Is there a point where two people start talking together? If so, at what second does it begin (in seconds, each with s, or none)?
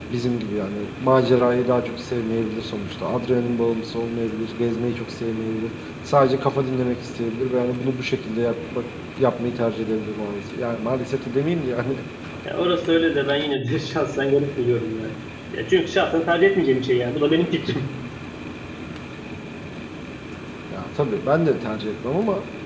none